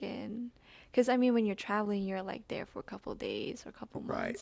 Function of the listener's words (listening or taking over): taking over